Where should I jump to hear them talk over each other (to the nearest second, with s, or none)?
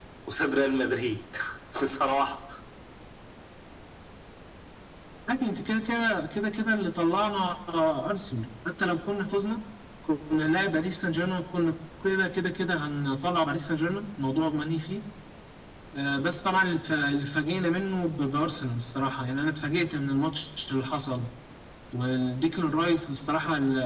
none